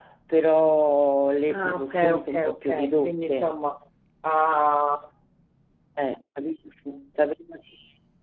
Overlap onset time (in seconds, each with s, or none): 1.4 s